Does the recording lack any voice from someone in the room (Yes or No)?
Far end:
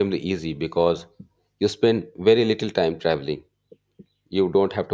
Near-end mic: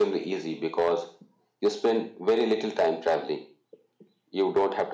Yes